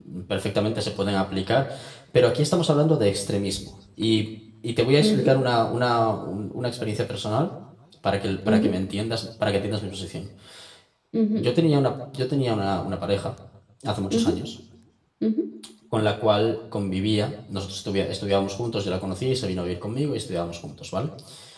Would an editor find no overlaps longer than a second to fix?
Yes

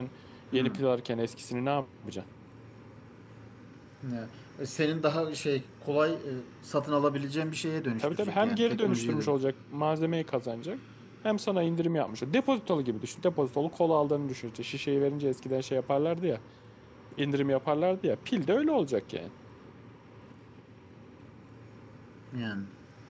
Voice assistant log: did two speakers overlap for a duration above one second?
Yes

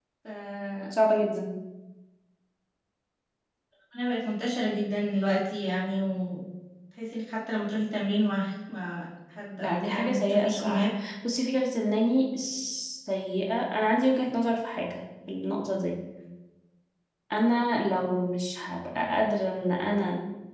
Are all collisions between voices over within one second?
No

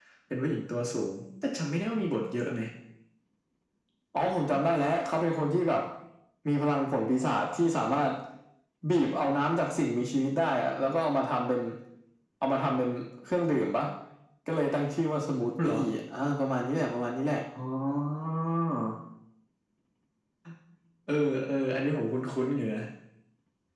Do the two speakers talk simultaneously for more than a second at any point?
No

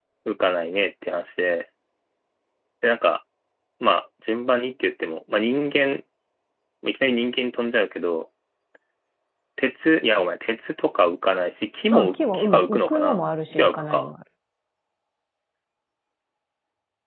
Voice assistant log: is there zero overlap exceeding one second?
No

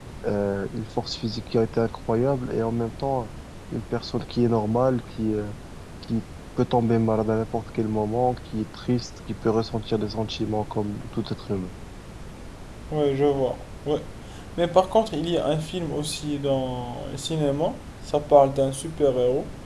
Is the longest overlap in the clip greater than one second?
No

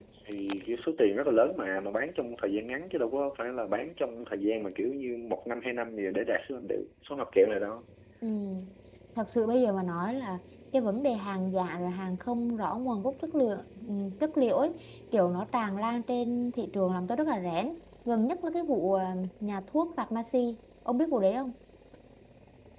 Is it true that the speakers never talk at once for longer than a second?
Yes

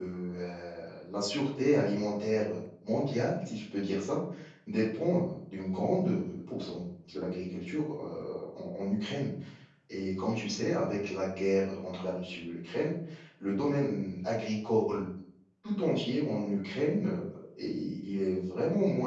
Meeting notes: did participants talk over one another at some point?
No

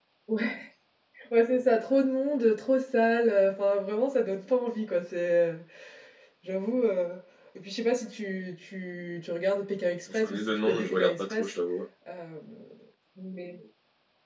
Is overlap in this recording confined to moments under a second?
No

